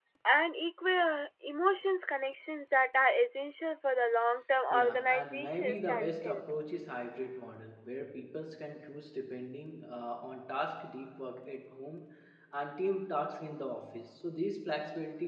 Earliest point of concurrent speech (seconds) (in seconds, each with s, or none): 4.7 s